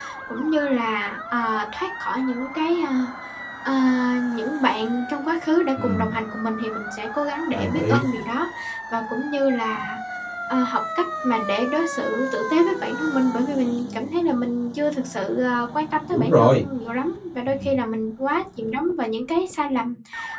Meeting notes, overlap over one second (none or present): none